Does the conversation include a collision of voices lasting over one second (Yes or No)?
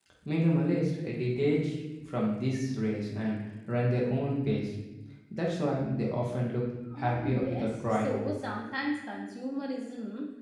Yes